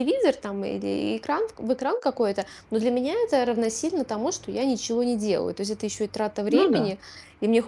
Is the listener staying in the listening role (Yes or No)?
Yes